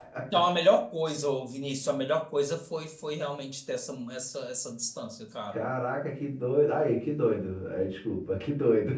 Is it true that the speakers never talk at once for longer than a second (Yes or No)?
Yes